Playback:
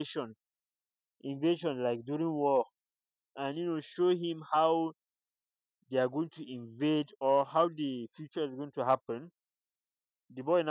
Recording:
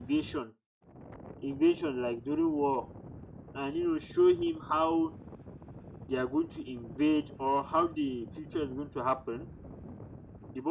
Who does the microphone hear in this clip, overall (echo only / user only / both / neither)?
echo only